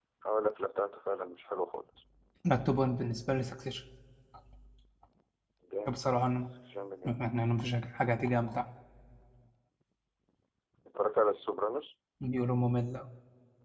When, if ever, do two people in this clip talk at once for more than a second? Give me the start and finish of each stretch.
none

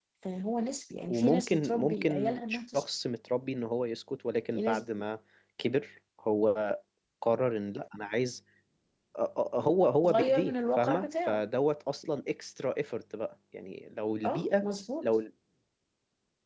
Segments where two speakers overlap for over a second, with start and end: 1.1-2.8, 10.0-11.4

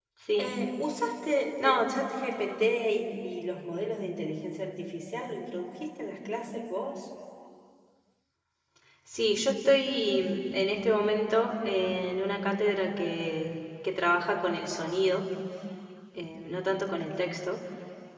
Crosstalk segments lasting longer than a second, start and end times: none

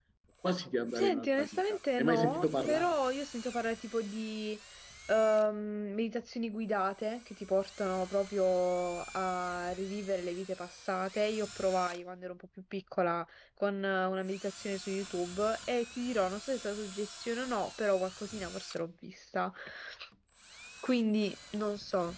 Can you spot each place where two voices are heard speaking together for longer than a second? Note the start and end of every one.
1.0-2.9

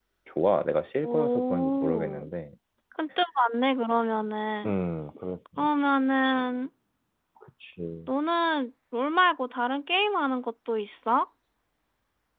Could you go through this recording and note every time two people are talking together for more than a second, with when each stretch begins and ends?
1.0-2.3

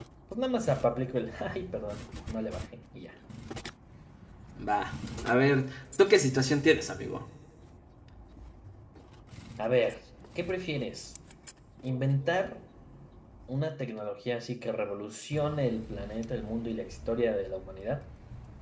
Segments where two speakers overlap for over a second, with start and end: none

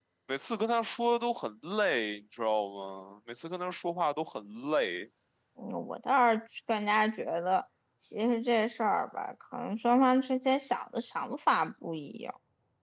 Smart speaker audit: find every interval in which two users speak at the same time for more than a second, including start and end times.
none

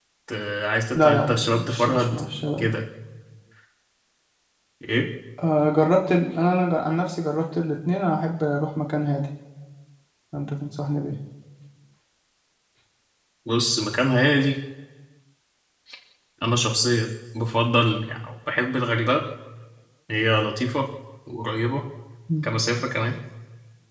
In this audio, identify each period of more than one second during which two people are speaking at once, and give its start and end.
0.9-2.2

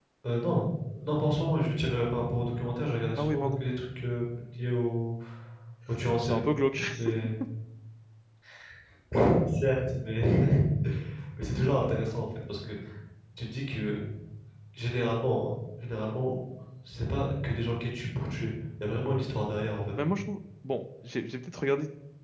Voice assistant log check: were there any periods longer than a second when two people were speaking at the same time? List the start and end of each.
none

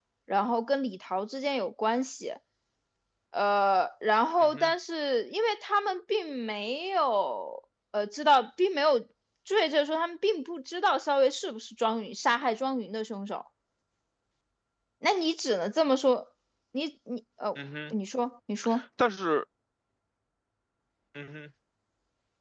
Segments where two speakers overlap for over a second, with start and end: none

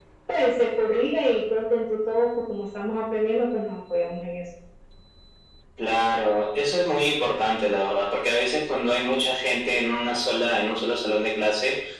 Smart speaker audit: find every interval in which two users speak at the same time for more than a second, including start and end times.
none

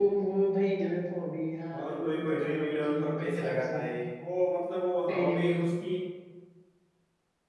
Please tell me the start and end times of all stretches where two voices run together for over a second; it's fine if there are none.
1.9-3.9

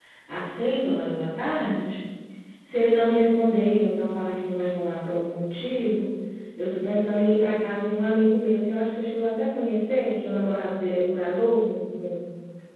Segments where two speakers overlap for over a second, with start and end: none

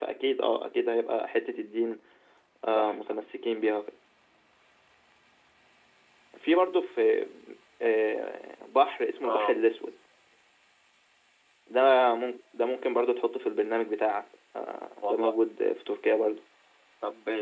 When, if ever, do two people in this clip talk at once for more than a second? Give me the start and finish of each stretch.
none

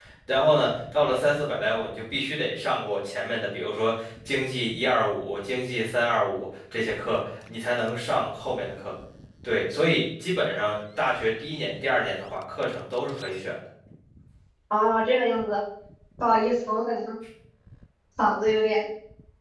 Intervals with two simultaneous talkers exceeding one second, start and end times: none

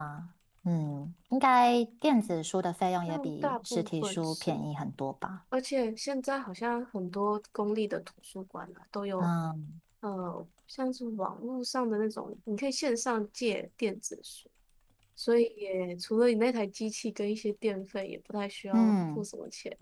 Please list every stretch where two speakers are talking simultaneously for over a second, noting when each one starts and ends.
3.1-4.6

